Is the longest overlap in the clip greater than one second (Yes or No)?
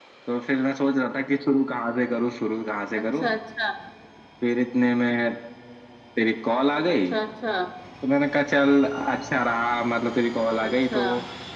No